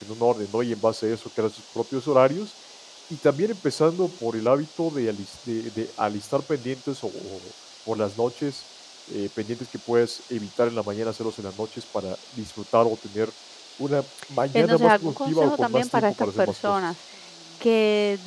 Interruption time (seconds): 15 s

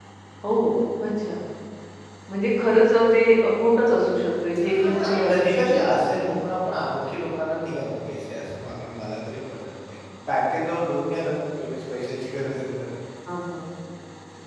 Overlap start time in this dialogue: 5 s

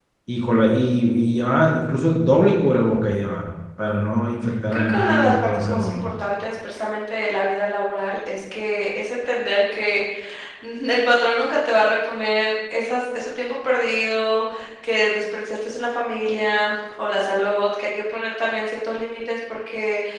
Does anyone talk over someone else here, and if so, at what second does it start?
5 s

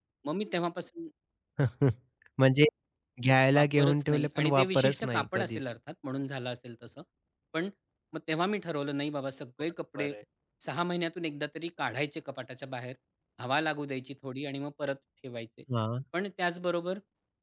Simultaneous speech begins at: 4 s

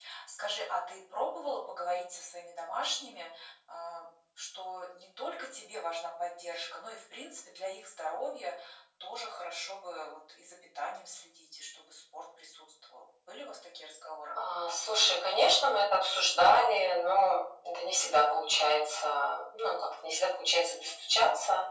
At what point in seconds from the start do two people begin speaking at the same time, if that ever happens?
none

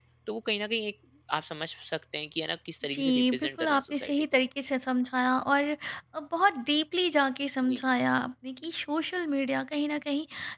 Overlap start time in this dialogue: 3 s

